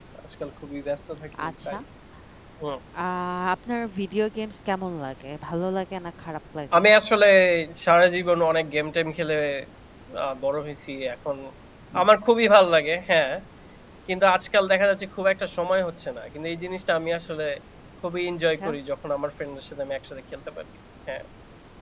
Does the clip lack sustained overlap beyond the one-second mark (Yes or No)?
Yes